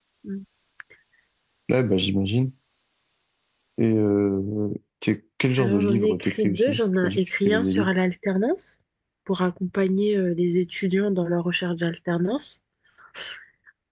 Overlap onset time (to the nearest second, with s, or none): 6 s